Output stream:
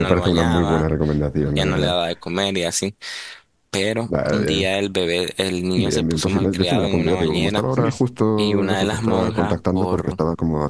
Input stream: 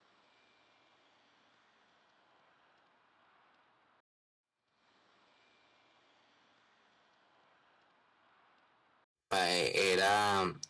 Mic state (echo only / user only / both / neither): user only